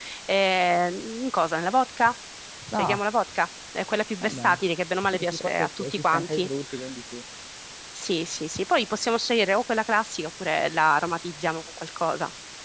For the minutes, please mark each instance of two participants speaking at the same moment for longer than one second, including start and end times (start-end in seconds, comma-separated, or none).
5.1-6.5